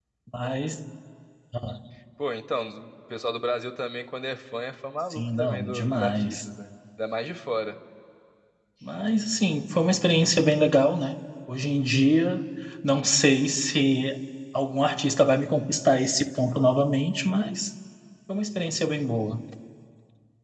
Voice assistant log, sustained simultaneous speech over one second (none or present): present